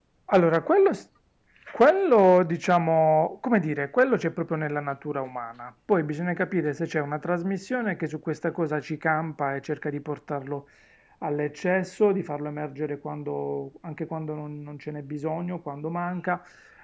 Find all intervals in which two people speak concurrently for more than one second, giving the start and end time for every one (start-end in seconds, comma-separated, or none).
none